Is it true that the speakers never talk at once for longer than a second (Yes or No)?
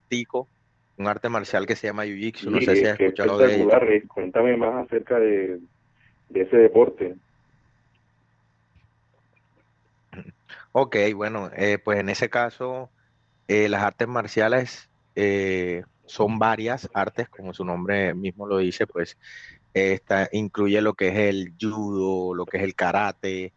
No